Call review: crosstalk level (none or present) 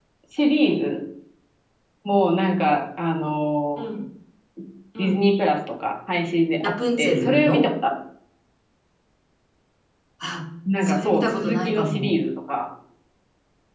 present